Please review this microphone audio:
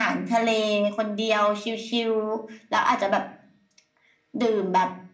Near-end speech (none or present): none